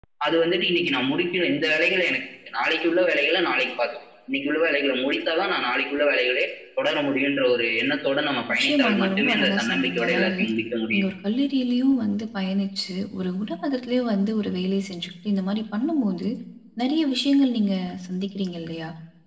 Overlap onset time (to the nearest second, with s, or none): 8 s